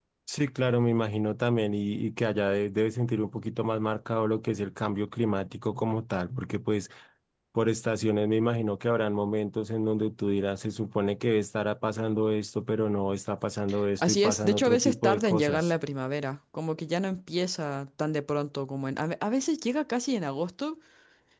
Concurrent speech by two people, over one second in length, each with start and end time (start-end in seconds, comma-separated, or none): 14.0-15.7